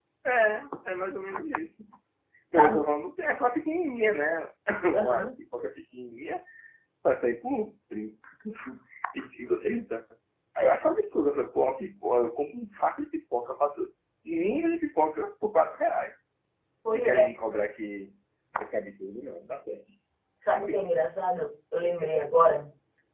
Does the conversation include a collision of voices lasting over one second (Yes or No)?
No